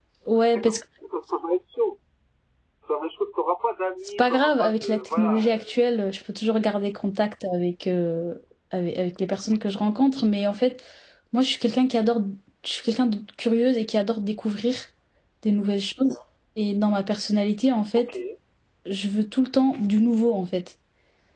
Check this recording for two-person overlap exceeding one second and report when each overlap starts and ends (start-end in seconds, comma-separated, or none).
4.2-5.8